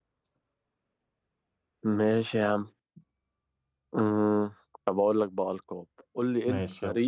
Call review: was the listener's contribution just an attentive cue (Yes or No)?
Yes